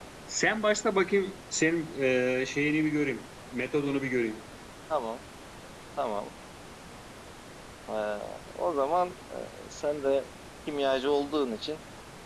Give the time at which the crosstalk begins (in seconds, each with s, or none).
none